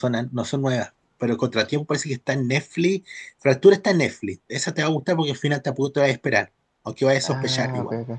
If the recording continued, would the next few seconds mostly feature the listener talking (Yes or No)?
Yes